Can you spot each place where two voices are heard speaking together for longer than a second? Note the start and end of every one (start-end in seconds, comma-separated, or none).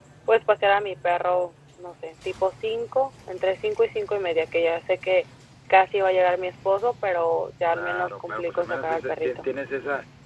7.7-9.4